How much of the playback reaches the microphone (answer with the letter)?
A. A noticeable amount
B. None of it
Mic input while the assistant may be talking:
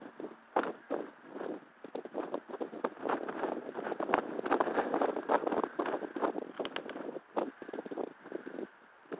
B